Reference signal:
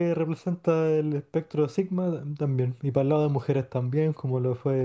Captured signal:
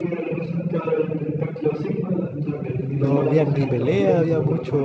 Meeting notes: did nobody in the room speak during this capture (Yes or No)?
No